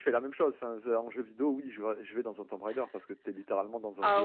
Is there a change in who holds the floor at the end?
Yes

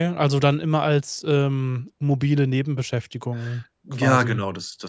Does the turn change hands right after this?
Yes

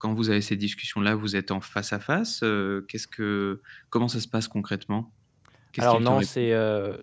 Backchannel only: No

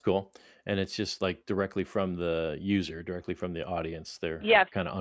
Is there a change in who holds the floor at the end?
Yes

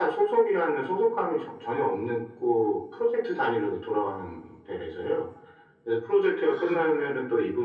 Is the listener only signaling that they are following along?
Yes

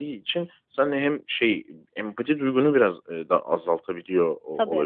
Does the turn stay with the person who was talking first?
Yes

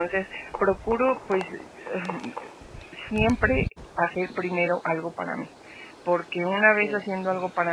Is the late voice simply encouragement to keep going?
Yes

